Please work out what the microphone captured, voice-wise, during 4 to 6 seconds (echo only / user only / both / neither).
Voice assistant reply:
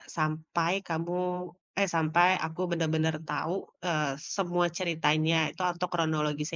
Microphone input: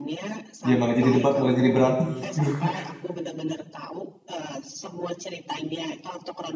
echo only